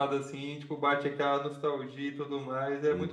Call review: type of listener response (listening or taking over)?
taking over